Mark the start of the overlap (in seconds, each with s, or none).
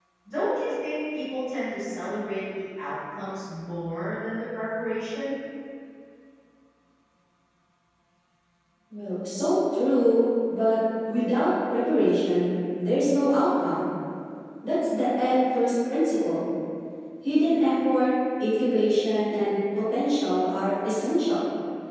none